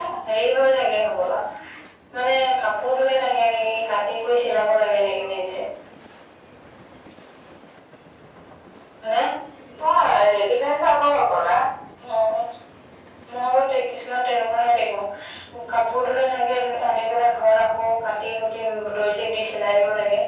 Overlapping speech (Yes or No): No